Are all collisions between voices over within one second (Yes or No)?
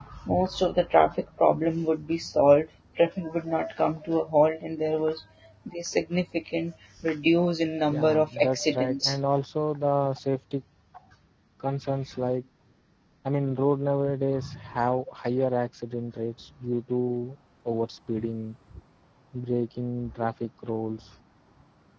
No